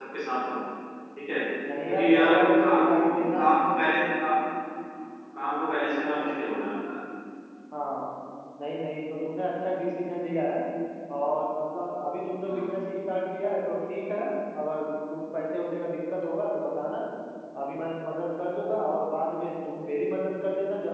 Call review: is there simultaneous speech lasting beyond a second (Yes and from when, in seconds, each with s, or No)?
Yes, from 1.9 s